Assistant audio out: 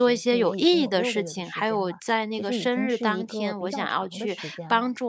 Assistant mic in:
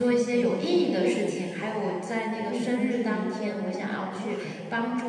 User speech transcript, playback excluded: 嗯，明白，

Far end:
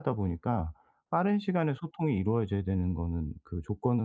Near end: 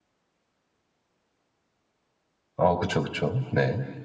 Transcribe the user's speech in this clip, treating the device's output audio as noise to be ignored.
어, 그쵸, 그쵸. 네.

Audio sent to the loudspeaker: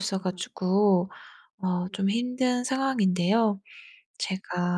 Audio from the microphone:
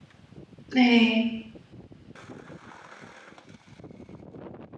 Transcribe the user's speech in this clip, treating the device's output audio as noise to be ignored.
네.

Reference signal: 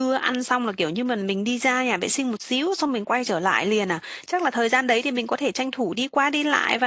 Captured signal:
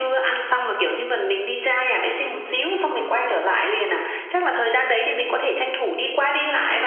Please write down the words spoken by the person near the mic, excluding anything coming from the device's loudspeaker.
none

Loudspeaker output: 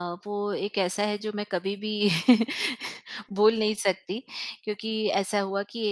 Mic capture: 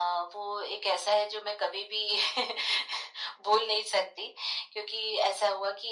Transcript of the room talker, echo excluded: none

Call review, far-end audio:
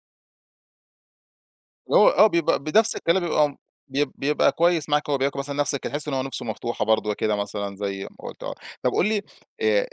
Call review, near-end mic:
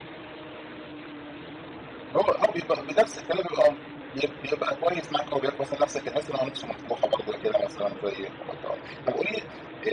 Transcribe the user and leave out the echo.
none

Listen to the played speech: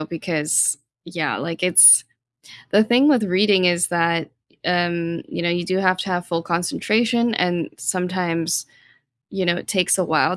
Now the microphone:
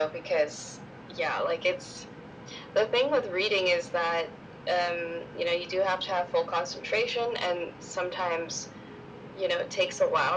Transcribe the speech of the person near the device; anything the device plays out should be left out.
none

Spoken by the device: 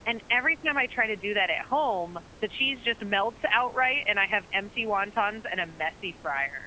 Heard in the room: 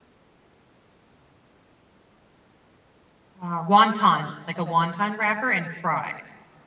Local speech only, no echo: uh, wonton, like a wonton wrapper and fried.

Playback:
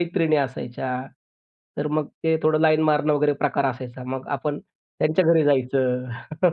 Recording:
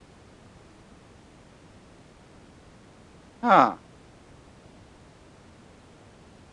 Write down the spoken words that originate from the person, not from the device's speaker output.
हां.

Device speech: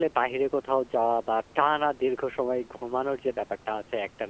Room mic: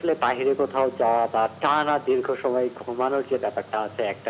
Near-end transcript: none

